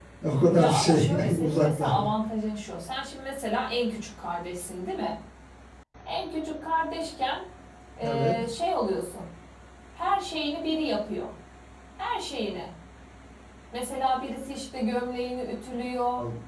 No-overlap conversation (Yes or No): No